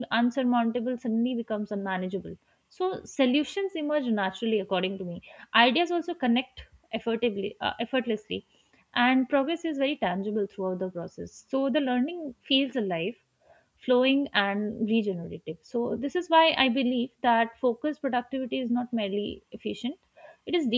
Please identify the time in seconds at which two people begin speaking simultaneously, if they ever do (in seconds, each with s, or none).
none